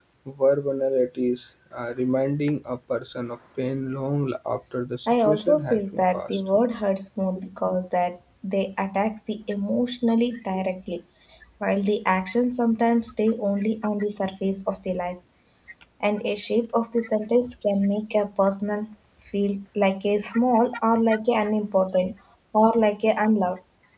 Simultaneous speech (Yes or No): Yes